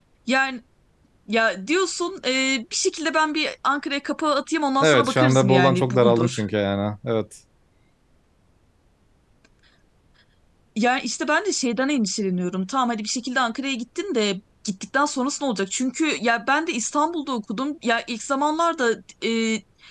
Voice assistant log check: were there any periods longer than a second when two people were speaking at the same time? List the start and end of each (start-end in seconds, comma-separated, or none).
4.8-6.4